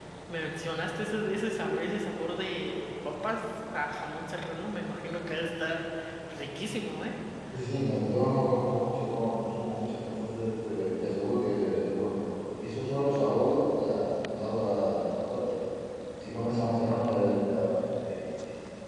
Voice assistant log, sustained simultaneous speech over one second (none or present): none